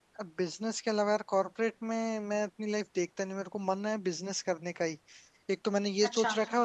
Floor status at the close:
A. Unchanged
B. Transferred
A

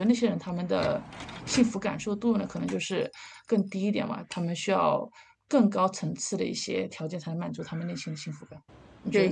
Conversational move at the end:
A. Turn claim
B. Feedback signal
A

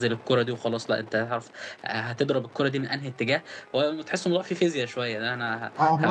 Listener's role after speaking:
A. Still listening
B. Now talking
A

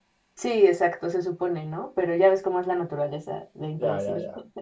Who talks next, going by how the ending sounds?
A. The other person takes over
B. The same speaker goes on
A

